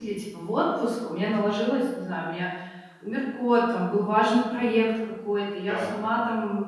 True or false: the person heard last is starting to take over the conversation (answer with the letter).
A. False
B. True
A